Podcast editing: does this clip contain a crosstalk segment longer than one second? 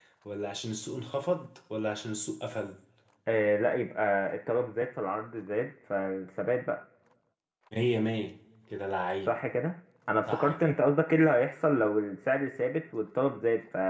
No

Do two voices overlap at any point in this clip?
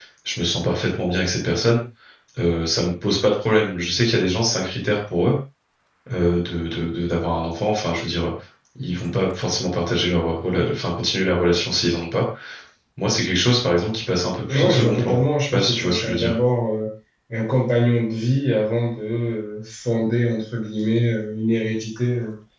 Yes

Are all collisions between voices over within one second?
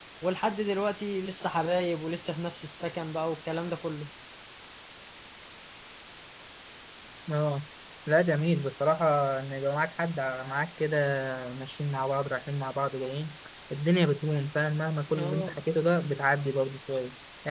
Yes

